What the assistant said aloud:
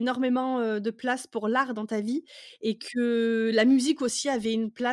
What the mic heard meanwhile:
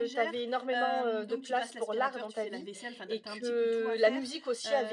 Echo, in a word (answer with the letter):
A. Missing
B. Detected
B